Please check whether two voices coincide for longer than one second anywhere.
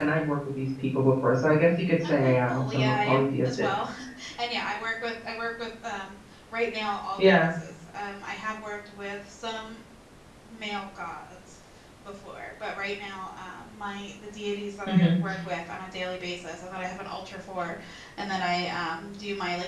Yes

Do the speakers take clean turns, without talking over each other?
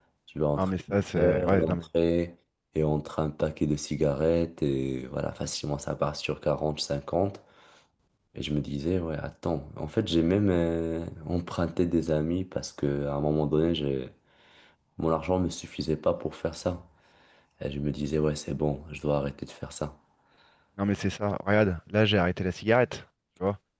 No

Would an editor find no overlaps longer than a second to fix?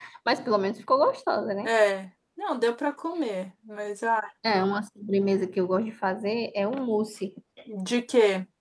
Yes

